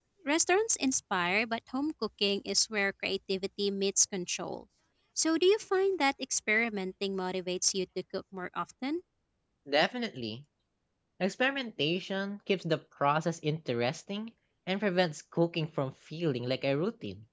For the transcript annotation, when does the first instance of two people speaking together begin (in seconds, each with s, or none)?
none